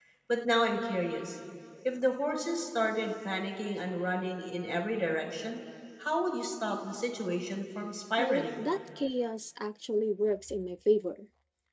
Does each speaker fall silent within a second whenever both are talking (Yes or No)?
Yes